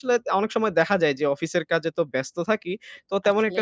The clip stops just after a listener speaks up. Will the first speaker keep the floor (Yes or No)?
Yes